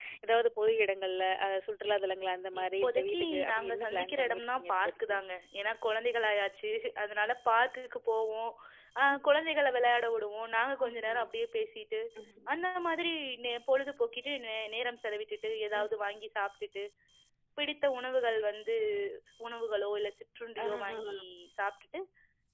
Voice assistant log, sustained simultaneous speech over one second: present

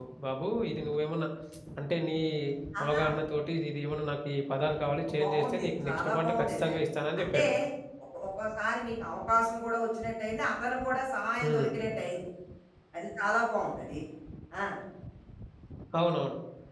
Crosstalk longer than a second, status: present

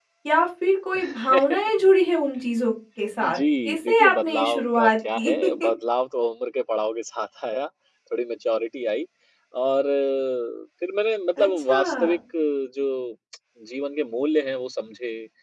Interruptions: present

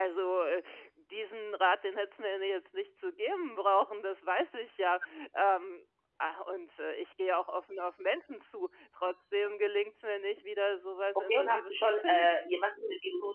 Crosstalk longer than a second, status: present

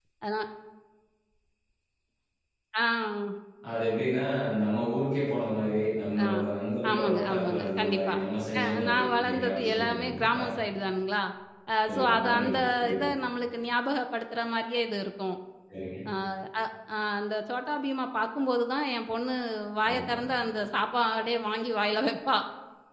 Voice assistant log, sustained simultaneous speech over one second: present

